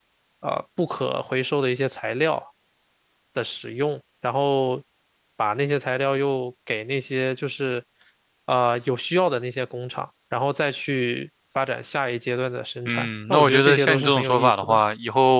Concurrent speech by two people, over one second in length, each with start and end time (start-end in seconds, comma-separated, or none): 12.9-14.8